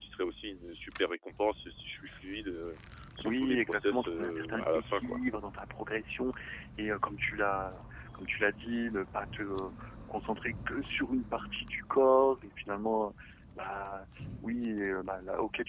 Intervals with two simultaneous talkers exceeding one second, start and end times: 3.2-5.2

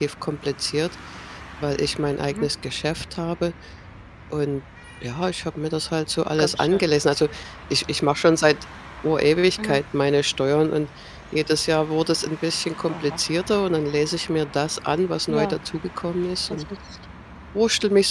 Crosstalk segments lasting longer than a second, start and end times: none

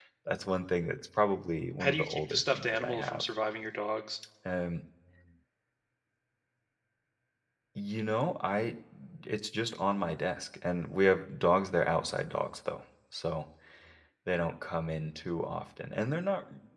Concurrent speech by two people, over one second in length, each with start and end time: 1.8-3.2

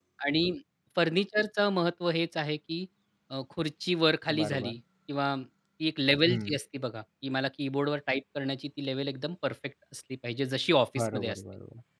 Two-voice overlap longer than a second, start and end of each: none

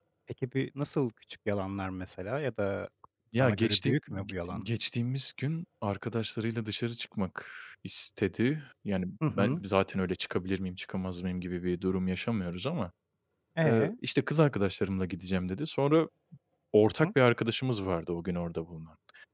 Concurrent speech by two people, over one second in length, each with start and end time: 3.4-4.7

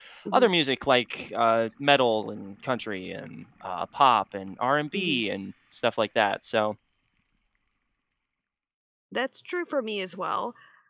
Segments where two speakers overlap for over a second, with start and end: none

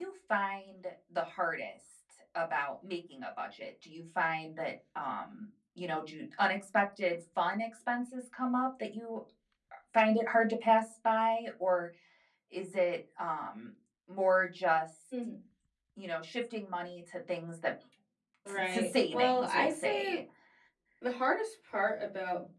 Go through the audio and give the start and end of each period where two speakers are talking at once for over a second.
18.5-20.2

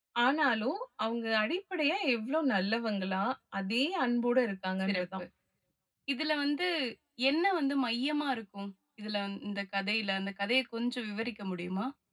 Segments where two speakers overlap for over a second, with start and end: none

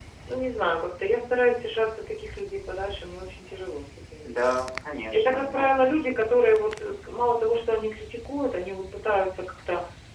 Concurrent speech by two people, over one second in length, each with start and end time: none

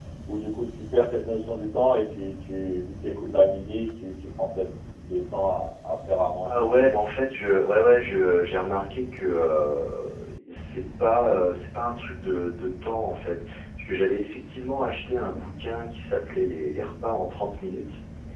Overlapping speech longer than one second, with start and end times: none

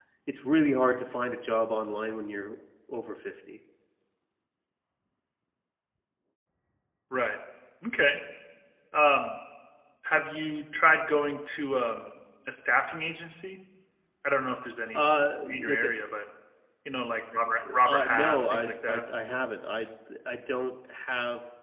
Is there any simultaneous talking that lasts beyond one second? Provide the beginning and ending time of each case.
17.8-19.0

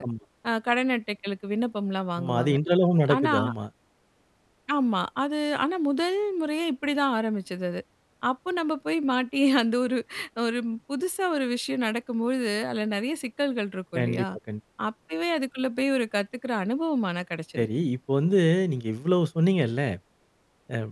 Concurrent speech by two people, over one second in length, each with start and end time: none

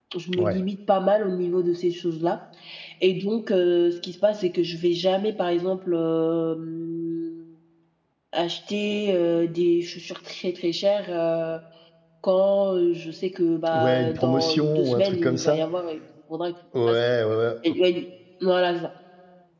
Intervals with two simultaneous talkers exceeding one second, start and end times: 13.7-15.6

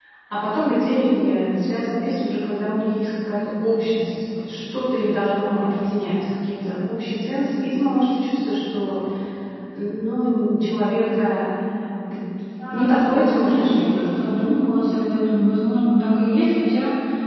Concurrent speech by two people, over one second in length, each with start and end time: 12.7-14.3

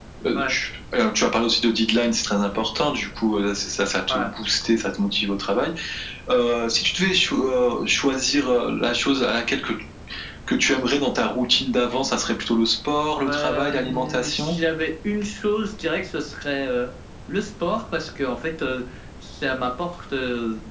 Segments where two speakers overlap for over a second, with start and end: 13.2-14.6

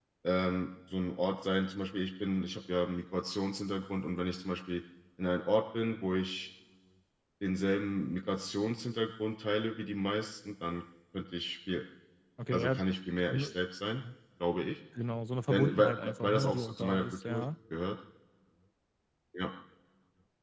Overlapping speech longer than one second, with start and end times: 15.5-17.4

